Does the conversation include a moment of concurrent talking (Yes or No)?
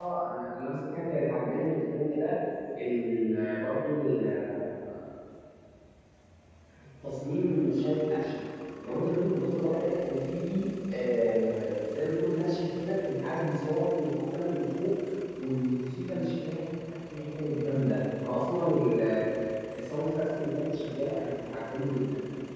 No